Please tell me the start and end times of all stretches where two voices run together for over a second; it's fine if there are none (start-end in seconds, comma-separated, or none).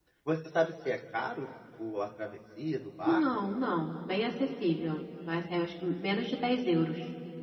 none